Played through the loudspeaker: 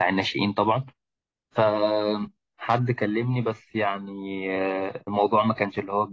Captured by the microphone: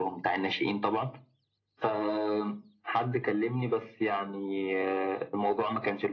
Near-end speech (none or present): none